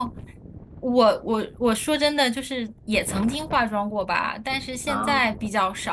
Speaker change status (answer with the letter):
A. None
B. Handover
A